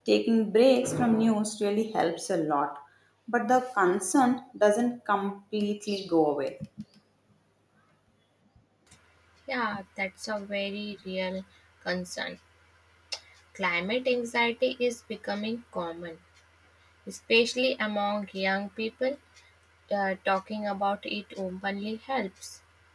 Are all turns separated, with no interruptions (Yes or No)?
Yes